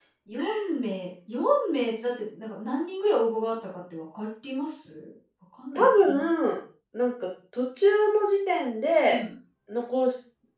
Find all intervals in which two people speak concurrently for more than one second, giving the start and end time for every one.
none

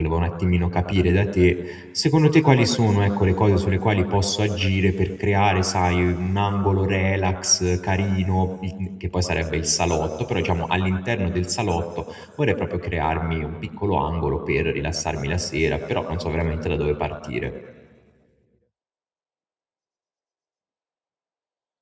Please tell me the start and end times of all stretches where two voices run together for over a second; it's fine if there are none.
none

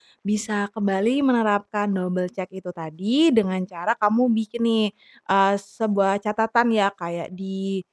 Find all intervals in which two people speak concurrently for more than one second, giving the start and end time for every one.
none

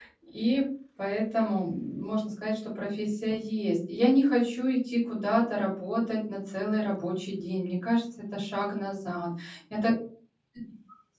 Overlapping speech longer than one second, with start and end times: none

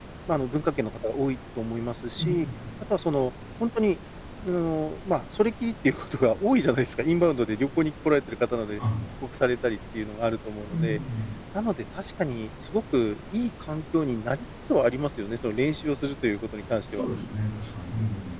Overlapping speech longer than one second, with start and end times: none

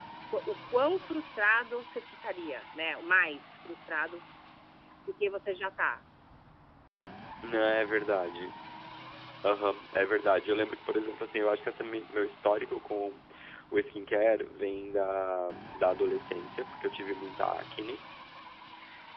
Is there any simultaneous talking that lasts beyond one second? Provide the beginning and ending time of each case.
none

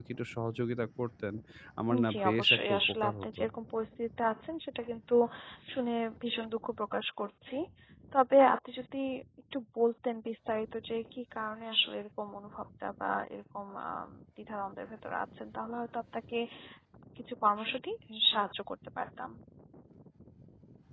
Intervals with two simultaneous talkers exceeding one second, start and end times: 2.1-3.4

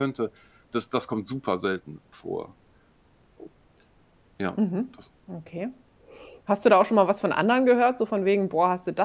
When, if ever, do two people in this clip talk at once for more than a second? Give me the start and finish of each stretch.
none

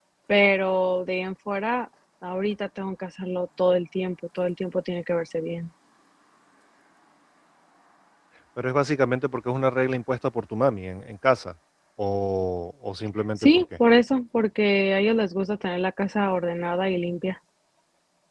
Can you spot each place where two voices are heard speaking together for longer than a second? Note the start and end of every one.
none

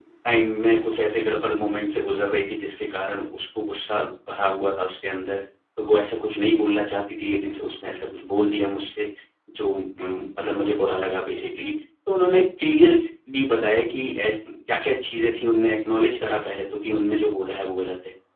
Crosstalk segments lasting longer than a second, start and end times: none

